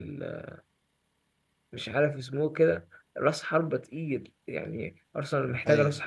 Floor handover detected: No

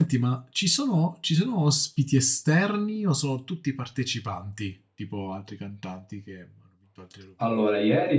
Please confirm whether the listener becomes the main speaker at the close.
Yes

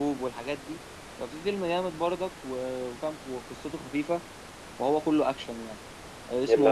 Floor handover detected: No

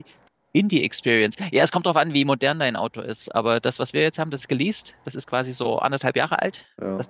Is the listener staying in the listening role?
Yes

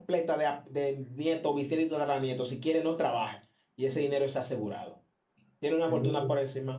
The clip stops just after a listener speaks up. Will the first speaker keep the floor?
Yes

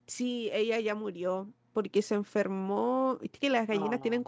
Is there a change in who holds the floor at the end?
No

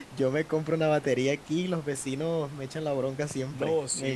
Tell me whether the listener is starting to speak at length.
Yes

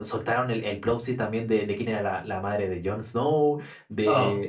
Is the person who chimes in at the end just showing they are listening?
Yes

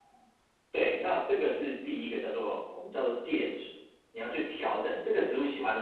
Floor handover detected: No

